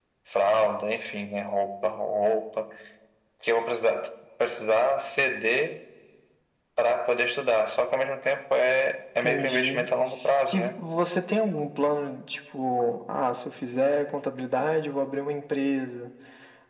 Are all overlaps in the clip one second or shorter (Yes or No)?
No